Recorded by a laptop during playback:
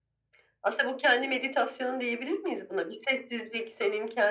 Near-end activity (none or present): none